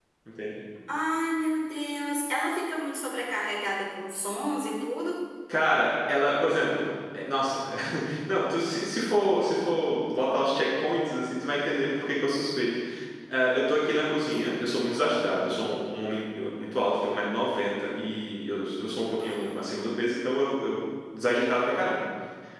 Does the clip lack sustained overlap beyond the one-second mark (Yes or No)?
Yes